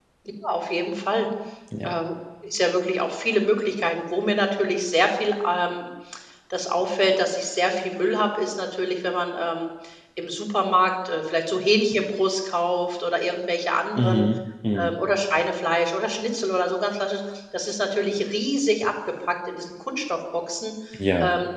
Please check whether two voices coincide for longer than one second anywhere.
No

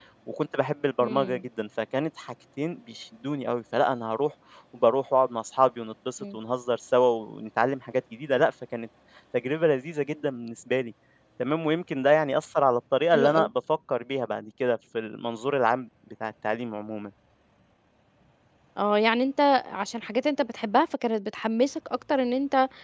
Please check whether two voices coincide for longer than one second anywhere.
No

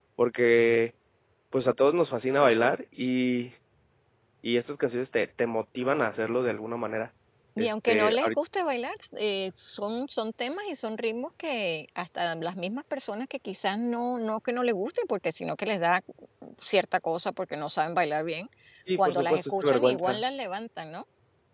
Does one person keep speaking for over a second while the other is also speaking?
Yes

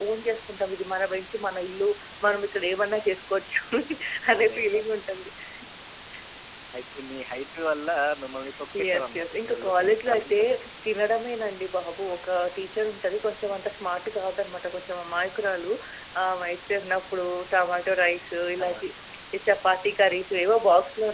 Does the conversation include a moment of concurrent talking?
Yes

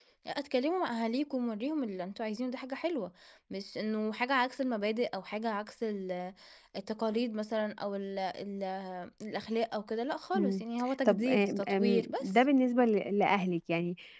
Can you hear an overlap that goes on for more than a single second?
Yes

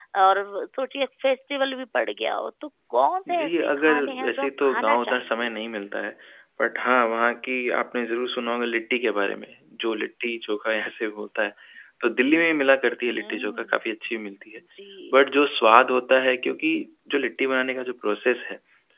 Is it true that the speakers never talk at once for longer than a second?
No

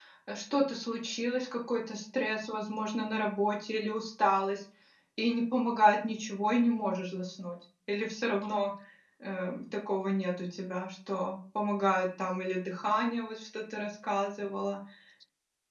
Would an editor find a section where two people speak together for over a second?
No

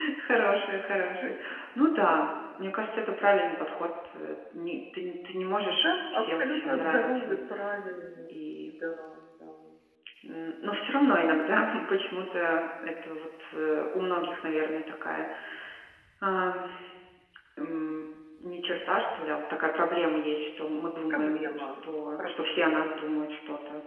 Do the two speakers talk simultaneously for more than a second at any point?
Yes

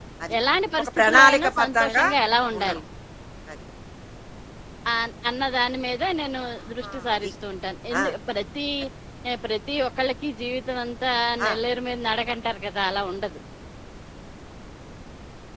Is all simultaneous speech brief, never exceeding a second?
No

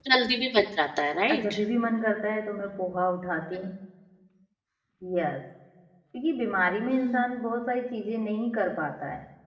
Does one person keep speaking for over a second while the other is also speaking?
No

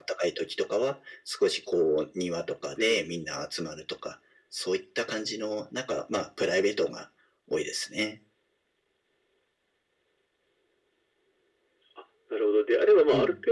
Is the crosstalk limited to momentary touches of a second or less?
Yes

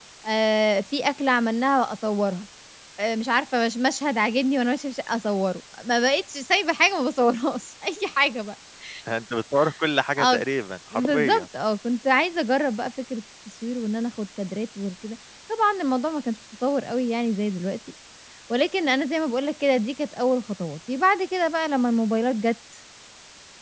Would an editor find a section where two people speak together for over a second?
No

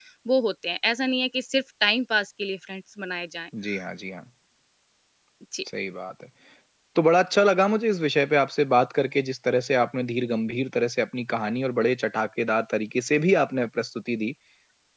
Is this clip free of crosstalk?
Yes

